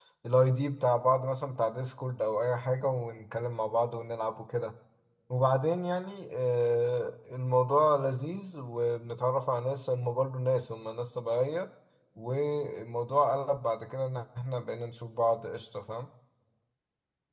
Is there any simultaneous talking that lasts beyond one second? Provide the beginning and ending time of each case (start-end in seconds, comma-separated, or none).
none